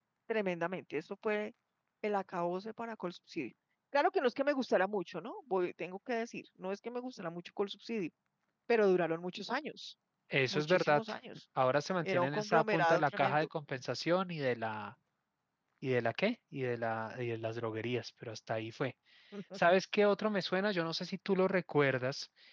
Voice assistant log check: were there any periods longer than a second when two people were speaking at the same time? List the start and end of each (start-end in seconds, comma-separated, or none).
12.0-13.5